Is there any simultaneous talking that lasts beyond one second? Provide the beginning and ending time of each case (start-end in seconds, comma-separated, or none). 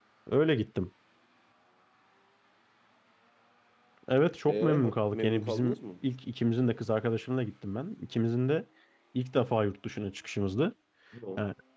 4.5-5.8